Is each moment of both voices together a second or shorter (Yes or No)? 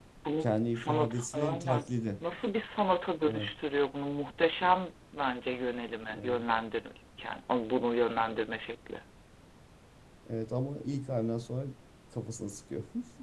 No